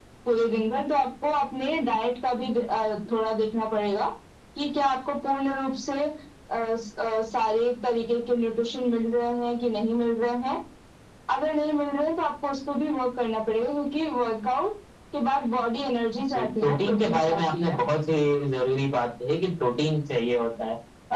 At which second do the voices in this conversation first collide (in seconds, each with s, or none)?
16.3 s